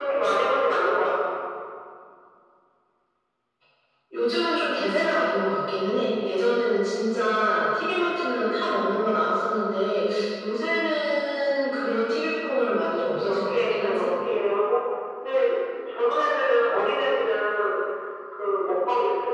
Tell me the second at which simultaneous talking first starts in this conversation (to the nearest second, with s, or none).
13 s